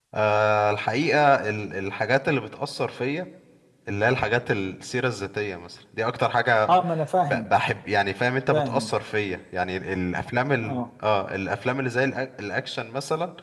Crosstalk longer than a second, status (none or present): none